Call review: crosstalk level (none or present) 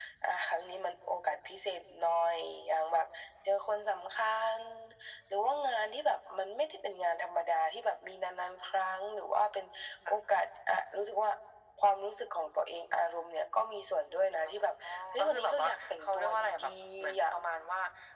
present